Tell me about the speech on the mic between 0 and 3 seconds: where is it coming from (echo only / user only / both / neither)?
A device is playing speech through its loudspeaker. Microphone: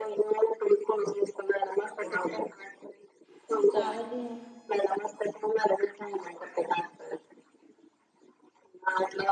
echo only